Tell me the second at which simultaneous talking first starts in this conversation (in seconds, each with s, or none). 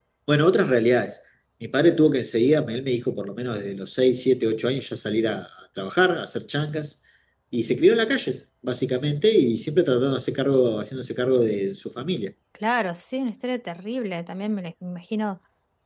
none